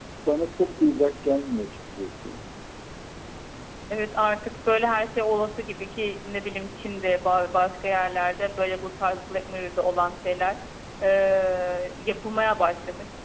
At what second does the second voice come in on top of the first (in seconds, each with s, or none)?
none